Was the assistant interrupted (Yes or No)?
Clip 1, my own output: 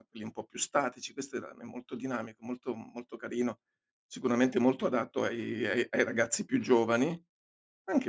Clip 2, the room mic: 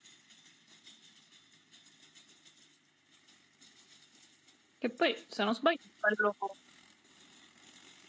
Yes